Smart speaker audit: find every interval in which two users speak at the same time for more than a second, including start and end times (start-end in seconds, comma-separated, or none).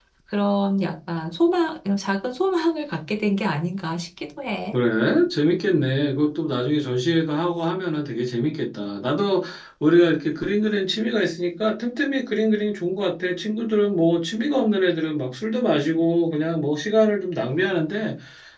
none